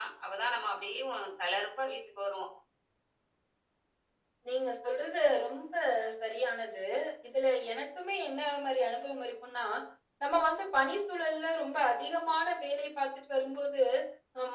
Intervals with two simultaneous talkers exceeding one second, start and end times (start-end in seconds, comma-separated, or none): none